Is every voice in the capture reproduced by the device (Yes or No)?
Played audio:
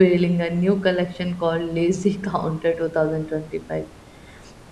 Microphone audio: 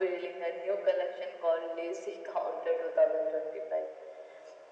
Yes